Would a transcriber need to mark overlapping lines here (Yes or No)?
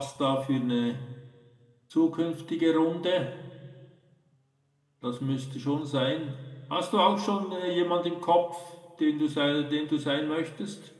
No